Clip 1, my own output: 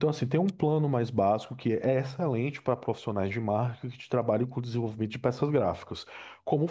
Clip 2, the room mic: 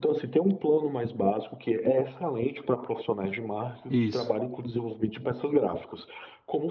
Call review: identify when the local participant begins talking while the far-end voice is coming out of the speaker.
4 s

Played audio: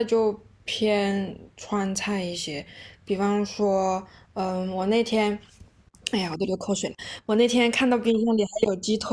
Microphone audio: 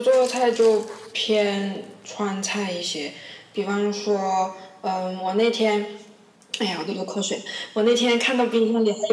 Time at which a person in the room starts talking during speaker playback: none

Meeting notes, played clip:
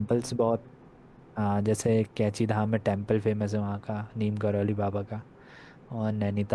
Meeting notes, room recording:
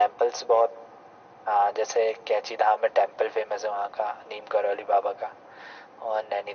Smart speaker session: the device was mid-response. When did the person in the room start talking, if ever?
none

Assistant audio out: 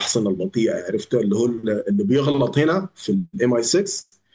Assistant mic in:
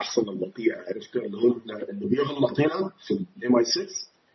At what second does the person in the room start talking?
none

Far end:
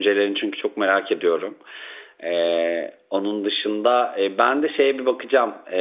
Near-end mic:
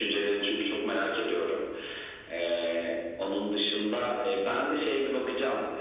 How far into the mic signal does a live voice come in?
none

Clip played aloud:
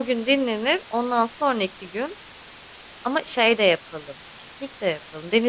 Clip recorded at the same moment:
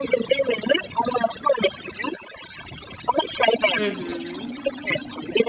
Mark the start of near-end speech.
4 s

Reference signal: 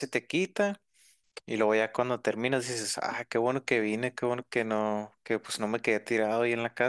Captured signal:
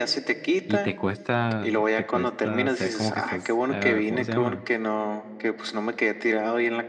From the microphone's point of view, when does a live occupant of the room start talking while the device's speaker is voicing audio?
1 s

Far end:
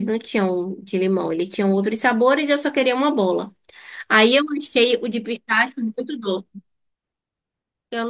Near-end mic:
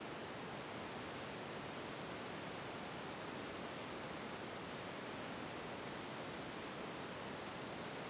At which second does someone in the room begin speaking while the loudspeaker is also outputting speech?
none

